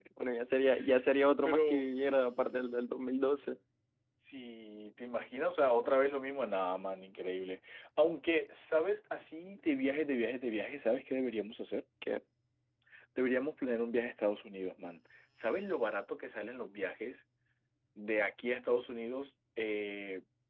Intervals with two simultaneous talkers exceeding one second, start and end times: none

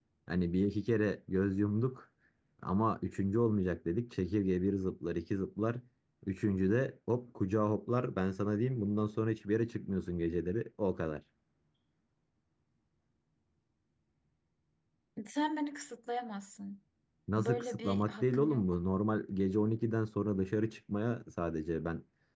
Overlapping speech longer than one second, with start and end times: 17.4-18.6

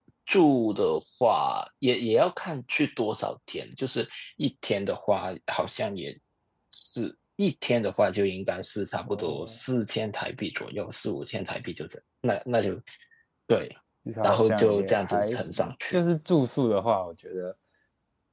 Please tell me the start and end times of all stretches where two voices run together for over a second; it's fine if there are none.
14.2-16.0

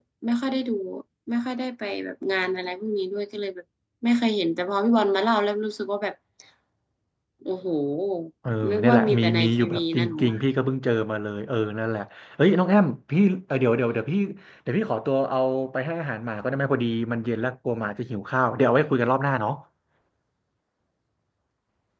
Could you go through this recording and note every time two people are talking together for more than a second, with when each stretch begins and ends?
8.7-10.4

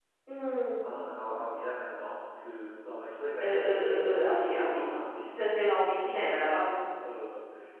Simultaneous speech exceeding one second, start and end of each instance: 3.4-4.8

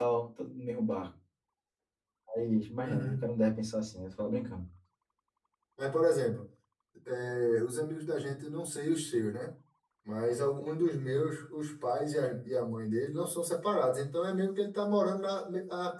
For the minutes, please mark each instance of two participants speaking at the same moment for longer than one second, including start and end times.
none

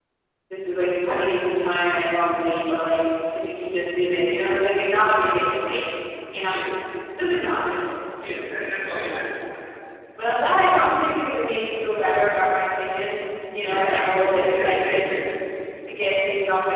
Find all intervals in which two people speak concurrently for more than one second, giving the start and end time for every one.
13.6-15.0

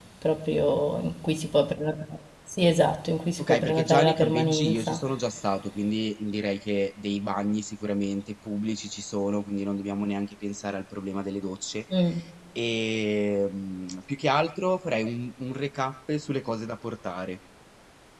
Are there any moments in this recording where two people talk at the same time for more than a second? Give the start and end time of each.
3.4-5.0

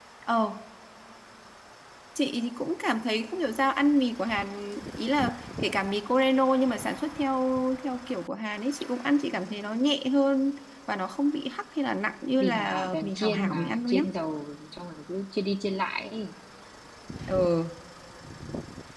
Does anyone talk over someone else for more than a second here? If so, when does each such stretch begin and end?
12.4-14.0

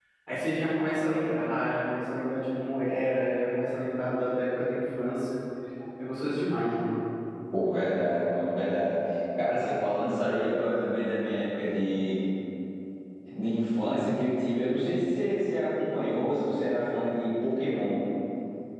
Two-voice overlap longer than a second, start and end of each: none

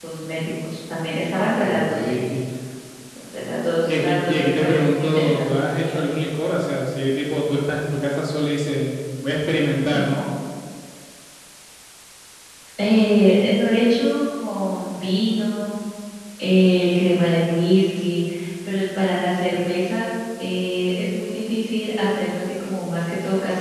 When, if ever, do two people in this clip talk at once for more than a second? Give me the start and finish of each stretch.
3.9-5.6

